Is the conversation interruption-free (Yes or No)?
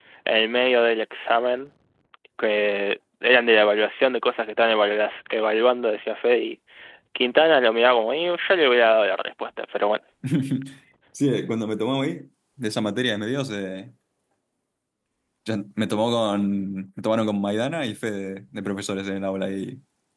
Yes